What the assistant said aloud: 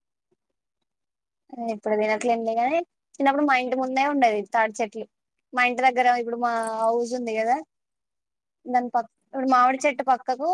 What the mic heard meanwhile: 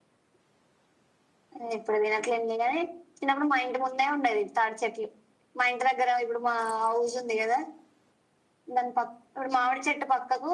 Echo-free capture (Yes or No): No